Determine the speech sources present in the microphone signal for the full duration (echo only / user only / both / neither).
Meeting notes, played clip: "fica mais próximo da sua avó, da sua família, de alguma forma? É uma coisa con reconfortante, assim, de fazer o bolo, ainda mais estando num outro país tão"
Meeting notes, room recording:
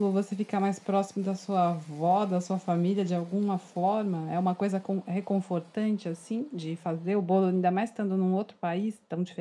echo only